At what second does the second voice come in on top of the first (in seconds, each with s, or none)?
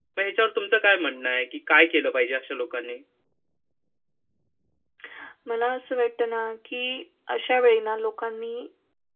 none